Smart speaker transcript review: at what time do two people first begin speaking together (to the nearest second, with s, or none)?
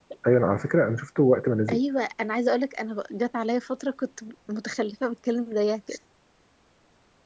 none